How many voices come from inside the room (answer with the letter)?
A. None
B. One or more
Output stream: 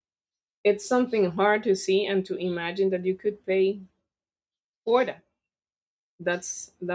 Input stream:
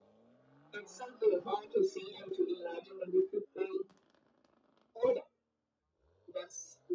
A